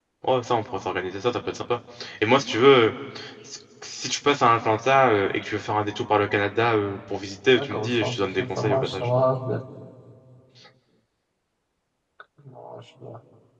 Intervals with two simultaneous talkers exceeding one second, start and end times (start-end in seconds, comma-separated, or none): 7.5-9.1